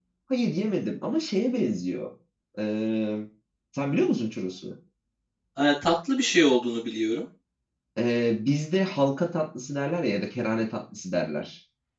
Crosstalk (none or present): none